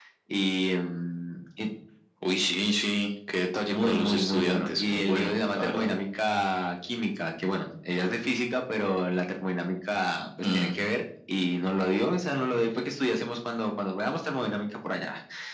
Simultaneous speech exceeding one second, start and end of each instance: 3.7-5.9

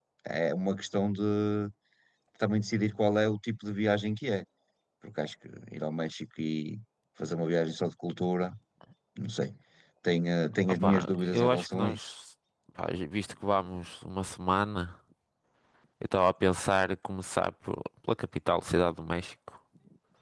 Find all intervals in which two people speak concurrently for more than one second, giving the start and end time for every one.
10.8-12.1

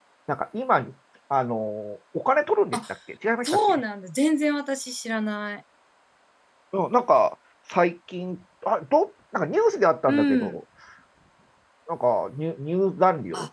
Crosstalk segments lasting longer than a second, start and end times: none

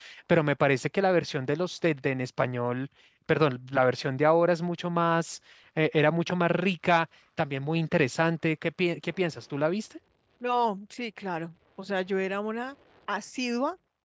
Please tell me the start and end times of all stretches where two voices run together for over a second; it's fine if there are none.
none

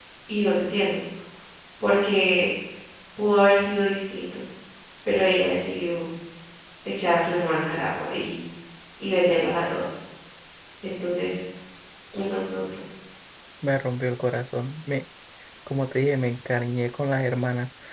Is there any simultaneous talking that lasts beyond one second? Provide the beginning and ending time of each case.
none

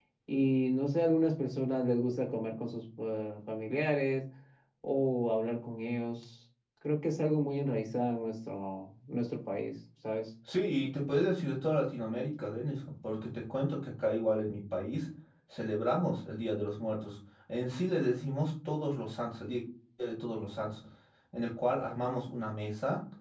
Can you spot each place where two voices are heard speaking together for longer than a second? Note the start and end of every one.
none

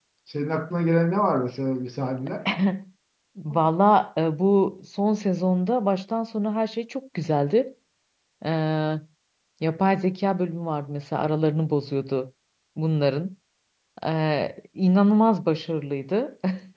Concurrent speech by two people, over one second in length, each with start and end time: none

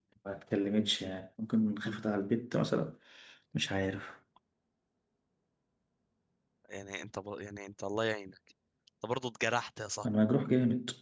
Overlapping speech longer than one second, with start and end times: none

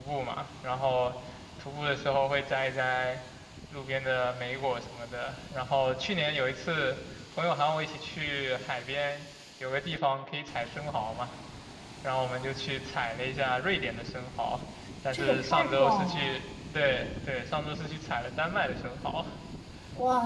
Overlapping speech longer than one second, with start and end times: 15.1-16.4

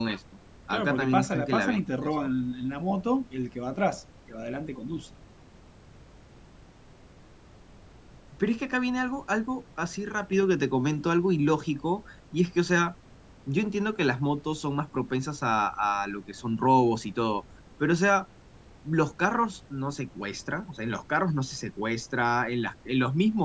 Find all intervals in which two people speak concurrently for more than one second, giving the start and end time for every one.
0.7-2.1

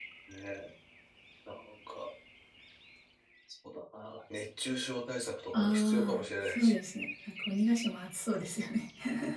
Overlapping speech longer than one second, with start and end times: 5.5-6.7

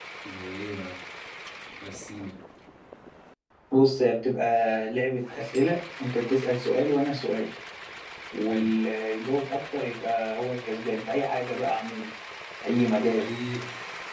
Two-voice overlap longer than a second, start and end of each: none

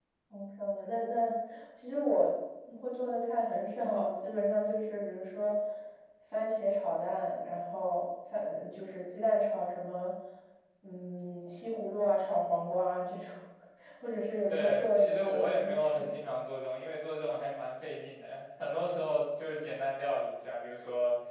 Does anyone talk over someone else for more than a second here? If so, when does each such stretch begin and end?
14.5-16.2

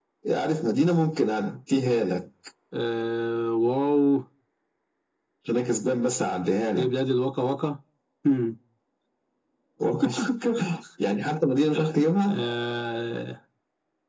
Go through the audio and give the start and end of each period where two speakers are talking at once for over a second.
none

